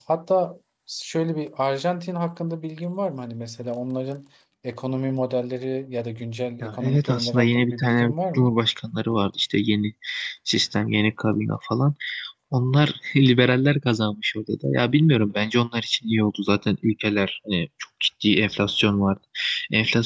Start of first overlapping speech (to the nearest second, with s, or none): 7 s